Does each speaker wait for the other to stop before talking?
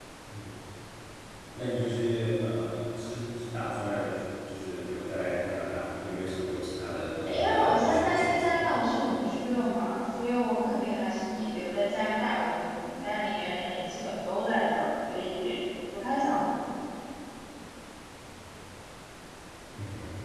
No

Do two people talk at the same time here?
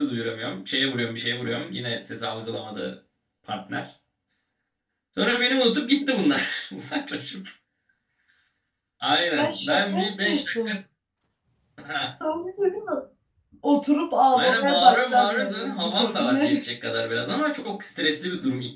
Yes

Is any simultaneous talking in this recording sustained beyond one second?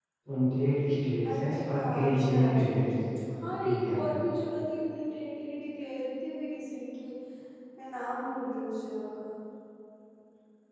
Yes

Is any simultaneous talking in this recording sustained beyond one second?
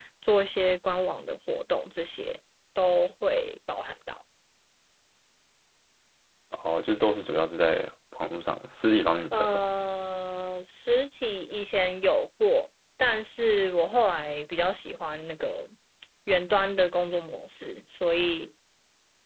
No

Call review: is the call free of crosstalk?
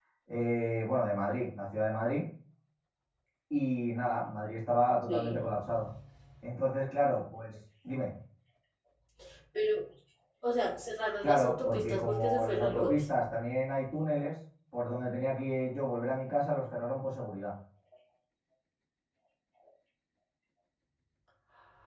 No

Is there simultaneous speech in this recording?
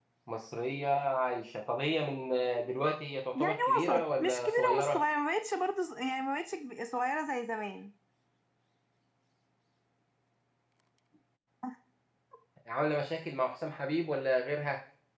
Yes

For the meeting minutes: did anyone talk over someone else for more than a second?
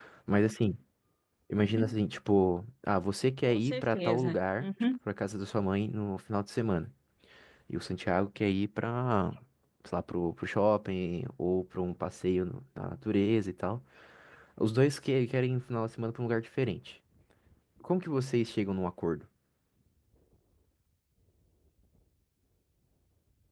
Yes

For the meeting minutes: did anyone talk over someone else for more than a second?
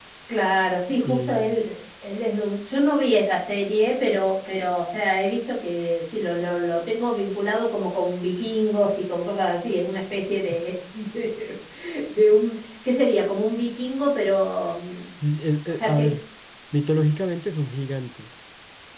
No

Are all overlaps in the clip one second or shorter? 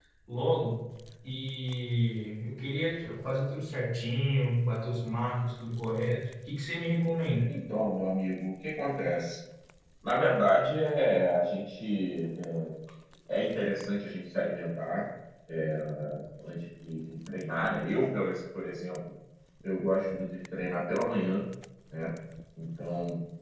Yes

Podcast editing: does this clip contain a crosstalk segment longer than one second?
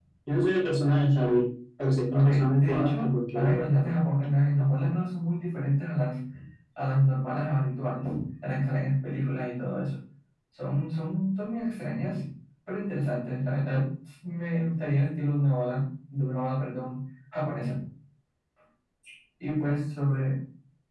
Yes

